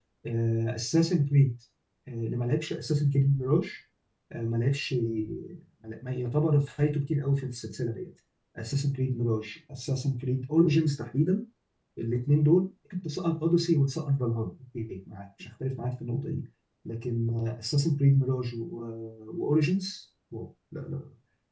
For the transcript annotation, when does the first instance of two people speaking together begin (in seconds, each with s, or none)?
none